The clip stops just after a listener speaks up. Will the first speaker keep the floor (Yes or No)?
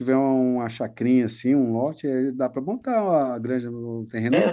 No